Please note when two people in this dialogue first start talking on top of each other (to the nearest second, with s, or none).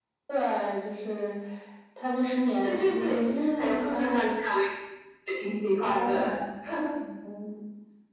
3 s